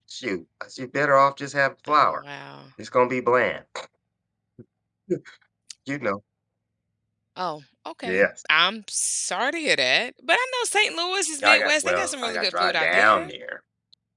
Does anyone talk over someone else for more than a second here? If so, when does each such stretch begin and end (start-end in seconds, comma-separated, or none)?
11.4-13.3